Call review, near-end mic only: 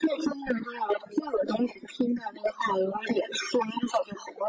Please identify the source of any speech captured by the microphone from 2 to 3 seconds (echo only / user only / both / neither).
echo only